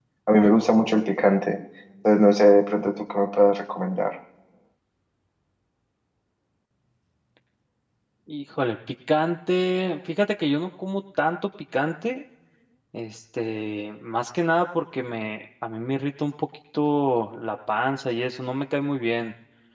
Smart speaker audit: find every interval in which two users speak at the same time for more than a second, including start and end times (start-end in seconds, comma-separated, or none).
none